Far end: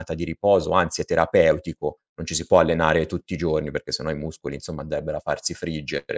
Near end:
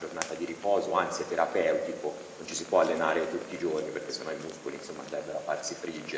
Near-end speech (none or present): none